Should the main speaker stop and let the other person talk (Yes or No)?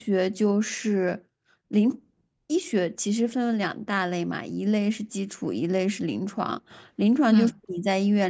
No